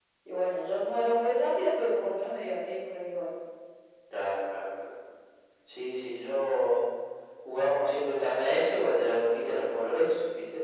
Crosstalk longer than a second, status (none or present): none